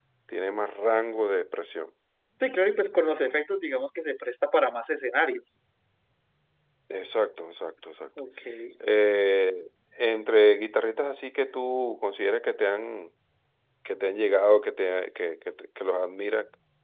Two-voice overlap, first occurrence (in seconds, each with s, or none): none